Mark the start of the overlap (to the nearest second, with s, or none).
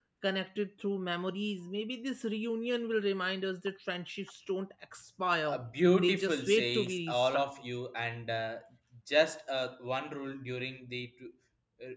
6 s